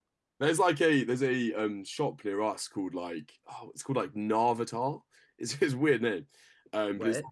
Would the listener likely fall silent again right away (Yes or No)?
Yes